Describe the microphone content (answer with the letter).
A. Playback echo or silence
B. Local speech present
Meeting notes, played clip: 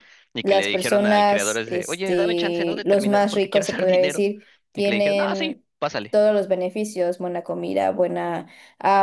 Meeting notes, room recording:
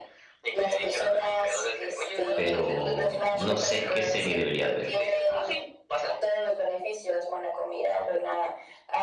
B